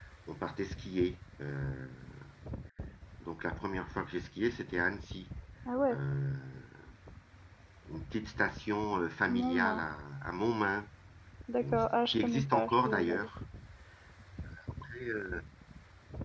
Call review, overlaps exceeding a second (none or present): present